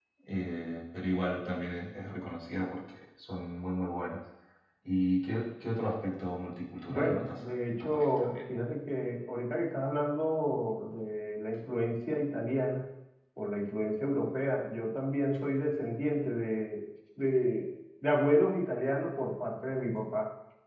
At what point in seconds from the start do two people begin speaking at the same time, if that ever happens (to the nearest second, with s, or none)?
7 s